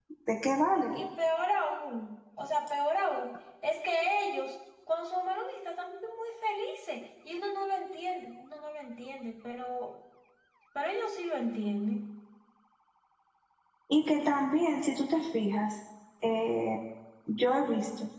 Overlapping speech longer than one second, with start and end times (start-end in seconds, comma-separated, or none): none